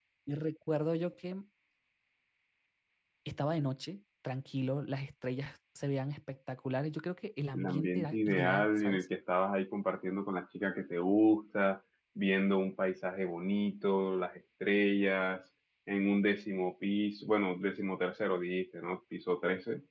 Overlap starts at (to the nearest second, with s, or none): 8 s